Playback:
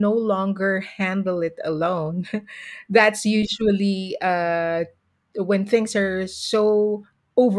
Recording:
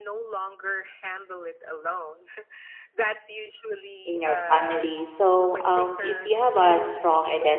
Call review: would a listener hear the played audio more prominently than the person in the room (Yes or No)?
No